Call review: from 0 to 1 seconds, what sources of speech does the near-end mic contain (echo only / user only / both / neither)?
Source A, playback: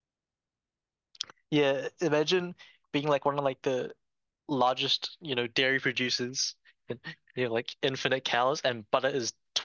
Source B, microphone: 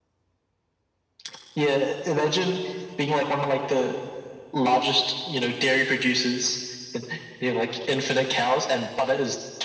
neither